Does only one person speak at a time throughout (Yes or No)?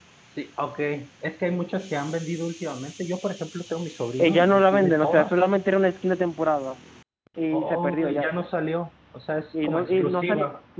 No